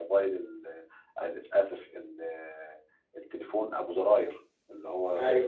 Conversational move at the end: listening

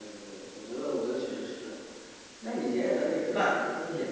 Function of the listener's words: listening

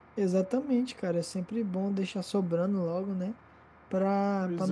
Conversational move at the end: listening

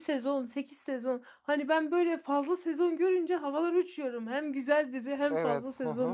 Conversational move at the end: taking over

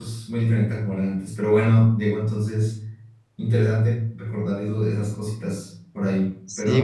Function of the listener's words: taking over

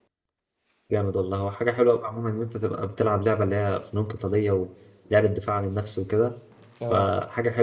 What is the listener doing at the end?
listening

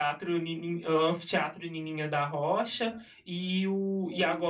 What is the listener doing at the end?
listening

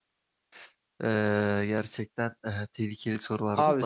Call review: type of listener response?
taking over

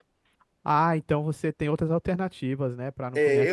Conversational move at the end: taking over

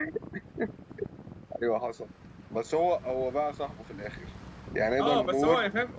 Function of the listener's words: taking over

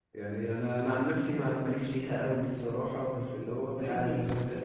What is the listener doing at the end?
taking over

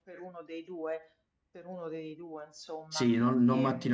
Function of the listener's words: taking over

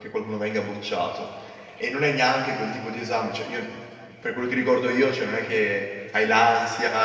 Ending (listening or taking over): listening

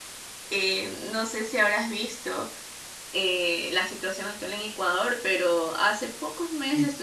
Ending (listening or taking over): listening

